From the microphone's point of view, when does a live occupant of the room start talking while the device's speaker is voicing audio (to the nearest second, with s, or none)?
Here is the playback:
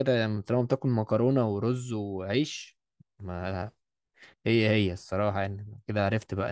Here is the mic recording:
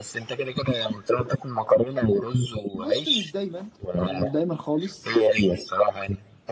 3 s